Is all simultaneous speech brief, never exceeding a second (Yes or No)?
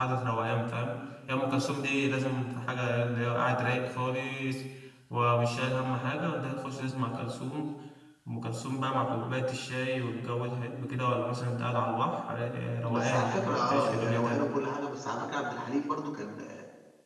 No